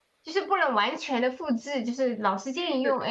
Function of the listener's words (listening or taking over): listening